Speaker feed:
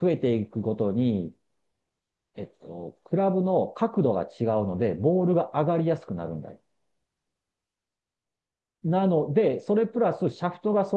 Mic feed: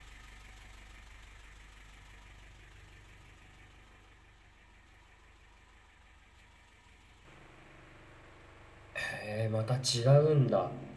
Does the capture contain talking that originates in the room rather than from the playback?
Yes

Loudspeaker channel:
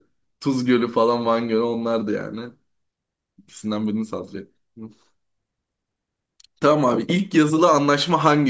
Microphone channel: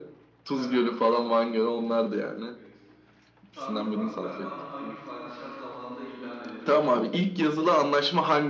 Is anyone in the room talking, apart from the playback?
Yes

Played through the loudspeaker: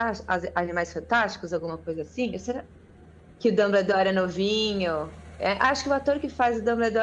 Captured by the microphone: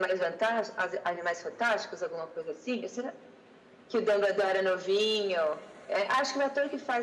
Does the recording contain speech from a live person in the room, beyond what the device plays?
No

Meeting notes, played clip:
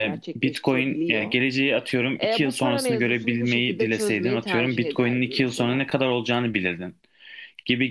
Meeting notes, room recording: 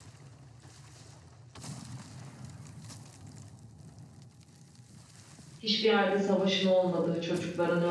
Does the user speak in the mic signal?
Yes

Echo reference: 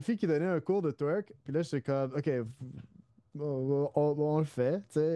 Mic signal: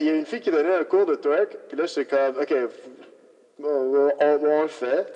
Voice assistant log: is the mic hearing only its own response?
Yes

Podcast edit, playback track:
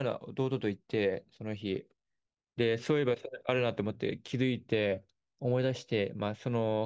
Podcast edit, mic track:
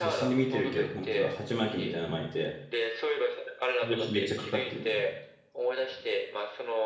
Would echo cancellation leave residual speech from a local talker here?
Yes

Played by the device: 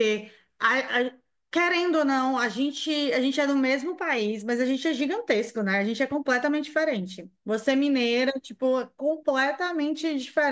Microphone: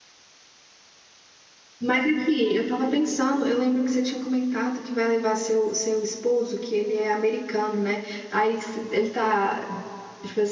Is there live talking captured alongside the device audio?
Yes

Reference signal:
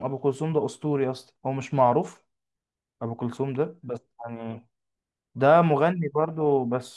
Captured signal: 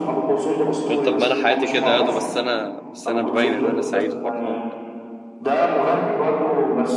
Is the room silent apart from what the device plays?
No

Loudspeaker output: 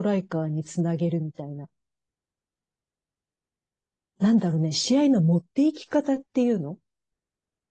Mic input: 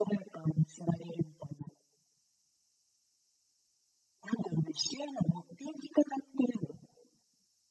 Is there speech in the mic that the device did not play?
No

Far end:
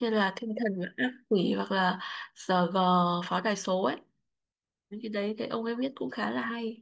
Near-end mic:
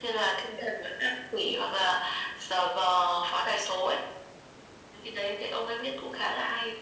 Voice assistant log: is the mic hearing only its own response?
Yes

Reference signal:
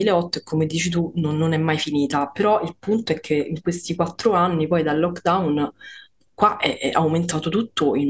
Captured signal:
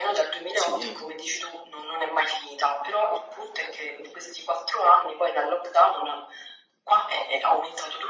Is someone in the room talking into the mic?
Yes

